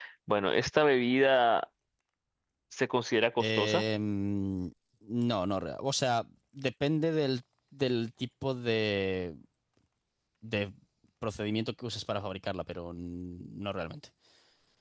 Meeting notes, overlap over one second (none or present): none